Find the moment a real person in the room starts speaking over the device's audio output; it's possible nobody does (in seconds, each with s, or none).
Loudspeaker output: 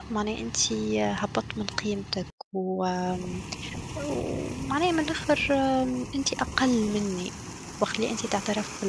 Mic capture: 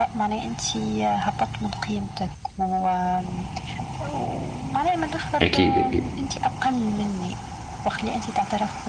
5.4 s